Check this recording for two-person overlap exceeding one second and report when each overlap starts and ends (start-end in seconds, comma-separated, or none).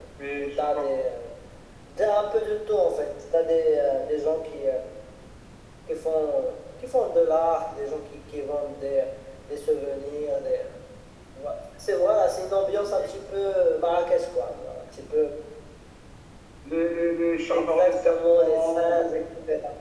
17.5-19.2